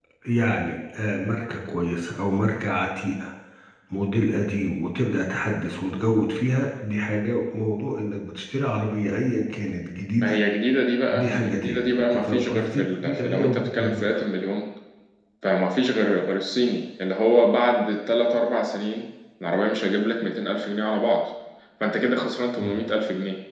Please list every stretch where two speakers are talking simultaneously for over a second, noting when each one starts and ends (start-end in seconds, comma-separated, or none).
11.1-14.2